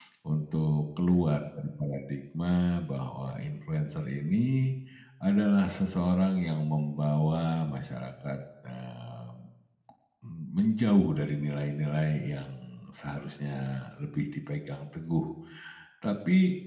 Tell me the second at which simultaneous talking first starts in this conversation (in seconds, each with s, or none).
none